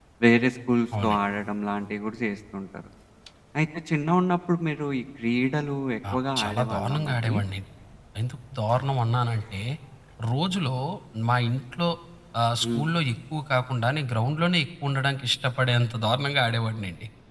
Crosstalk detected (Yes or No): Yes